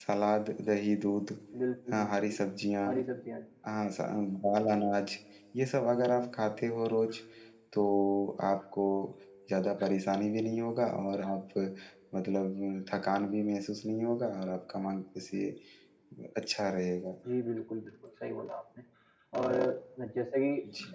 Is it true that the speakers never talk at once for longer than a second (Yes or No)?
Yes